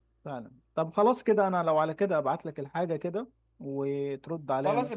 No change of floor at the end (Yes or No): No